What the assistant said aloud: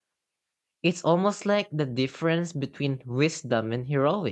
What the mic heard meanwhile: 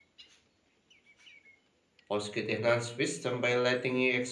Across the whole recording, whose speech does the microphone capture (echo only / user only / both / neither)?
user only